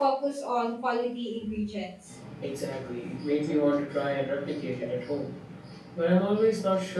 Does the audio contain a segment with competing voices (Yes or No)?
No